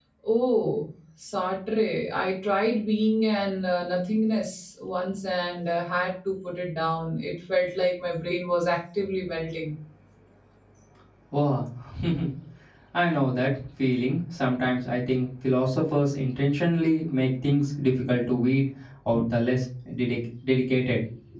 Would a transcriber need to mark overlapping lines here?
No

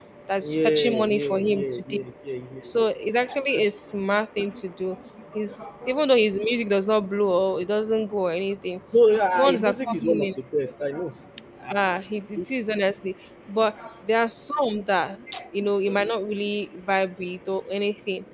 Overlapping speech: Yes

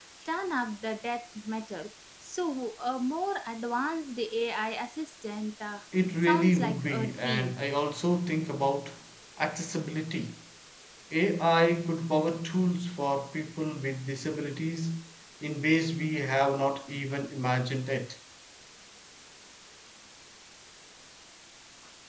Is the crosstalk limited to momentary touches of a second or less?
No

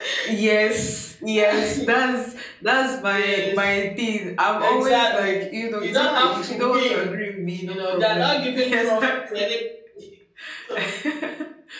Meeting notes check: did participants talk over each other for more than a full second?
Yes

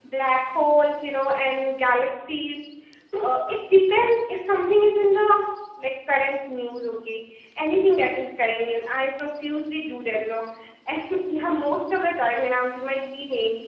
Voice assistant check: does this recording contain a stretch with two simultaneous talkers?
No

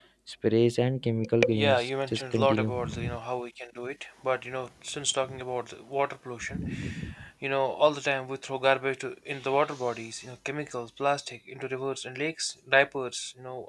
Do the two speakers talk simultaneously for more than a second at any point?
Yes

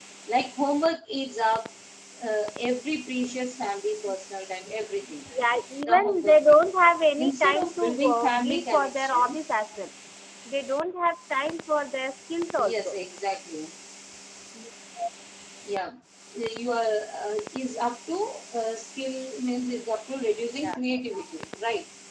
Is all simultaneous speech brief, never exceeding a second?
No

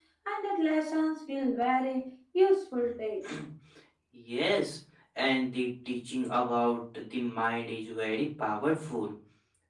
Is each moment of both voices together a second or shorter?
Yes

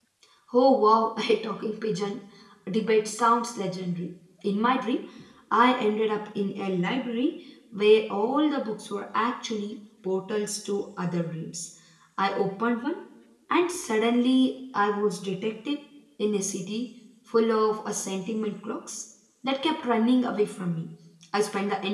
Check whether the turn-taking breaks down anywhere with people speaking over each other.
No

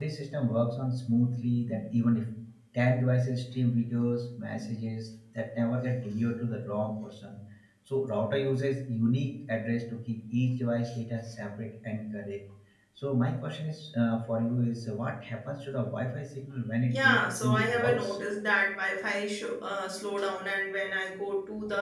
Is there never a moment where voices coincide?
No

